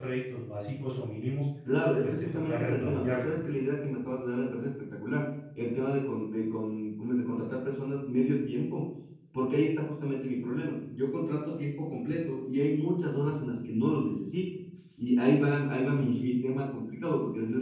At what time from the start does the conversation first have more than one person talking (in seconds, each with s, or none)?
2.0 s